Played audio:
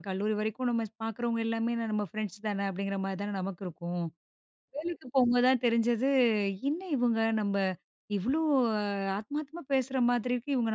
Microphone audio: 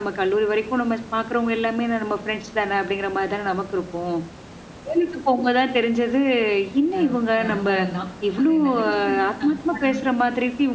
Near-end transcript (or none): அ அனுபவம் தான். அது நல்ல விஷயம். நான் பாட